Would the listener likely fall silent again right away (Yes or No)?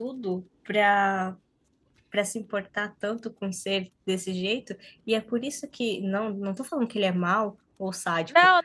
No